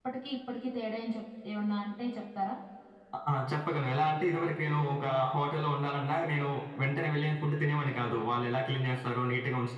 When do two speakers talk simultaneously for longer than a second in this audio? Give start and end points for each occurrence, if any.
none

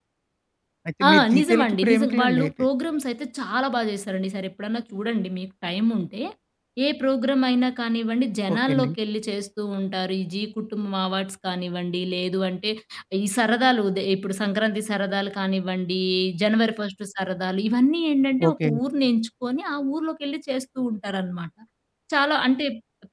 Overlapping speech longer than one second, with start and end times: 1.1-2.5

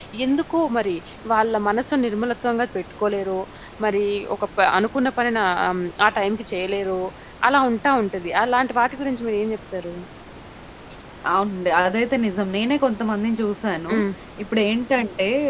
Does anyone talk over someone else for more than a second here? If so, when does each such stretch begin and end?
none

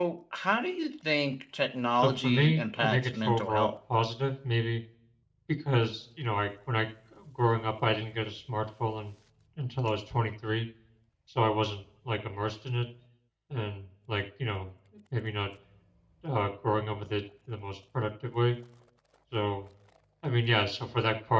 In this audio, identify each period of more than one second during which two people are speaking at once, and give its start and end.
2.0-3.7

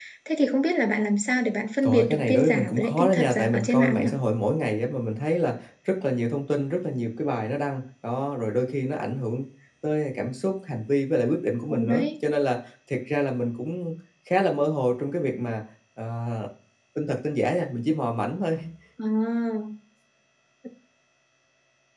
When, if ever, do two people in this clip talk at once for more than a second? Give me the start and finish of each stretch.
1.8-4.1

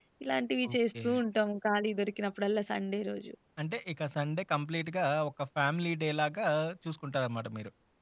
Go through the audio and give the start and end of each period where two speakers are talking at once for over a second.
none

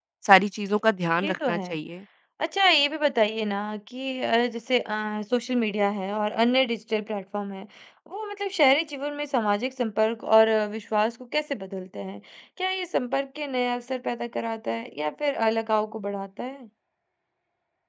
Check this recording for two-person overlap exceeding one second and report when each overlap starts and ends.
none

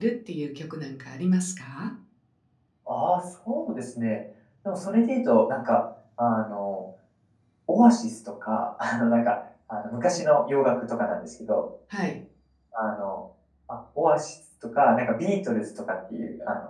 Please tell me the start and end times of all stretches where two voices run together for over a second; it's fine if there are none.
none

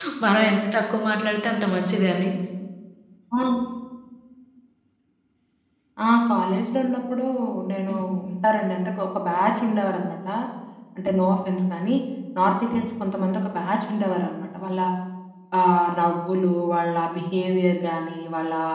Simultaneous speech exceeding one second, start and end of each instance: none

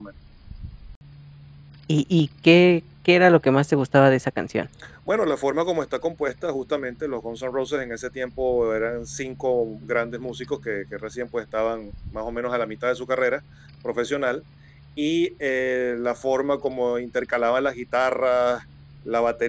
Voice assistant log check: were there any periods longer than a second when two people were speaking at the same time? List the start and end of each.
none

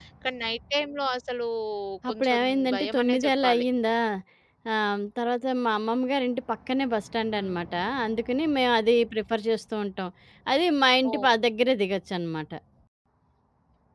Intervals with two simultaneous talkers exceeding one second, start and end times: 2.1-3.6

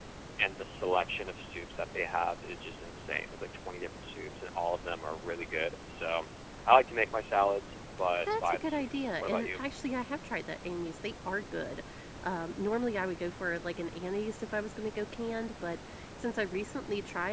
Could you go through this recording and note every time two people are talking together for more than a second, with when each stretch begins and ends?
8.2-9.6

